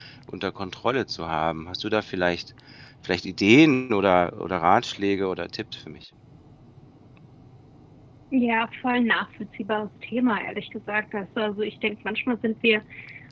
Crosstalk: none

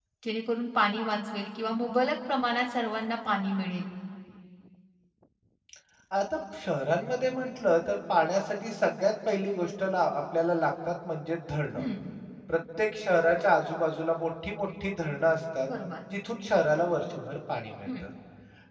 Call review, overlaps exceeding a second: none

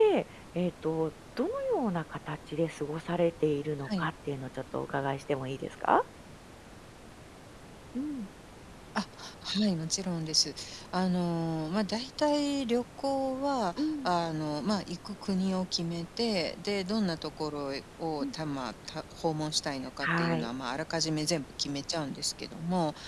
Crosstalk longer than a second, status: none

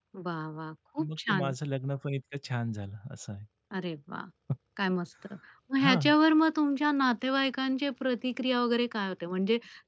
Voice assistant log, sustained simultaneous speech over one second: none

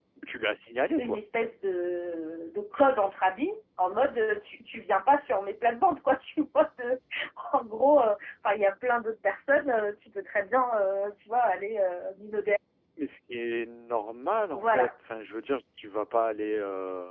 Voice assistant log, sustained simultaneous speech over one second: none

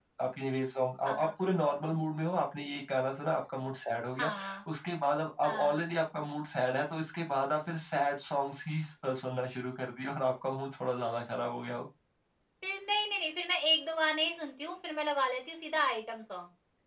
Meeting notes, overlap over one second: none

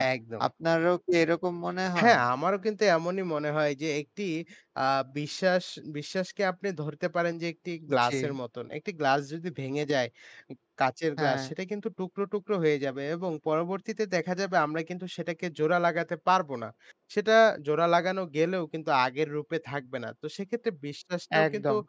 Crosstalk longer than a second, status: none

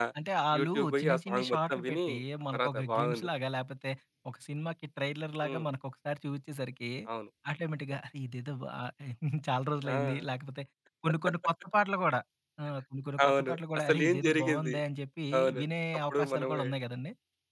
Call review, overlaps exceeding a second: present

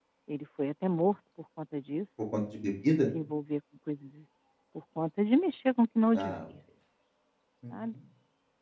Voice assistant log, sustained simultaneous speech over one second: none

